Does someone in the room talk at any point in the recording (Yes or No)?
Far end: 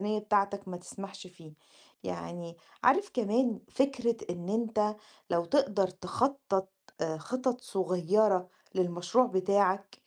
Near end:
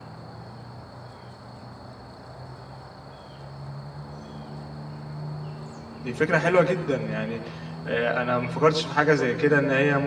Yes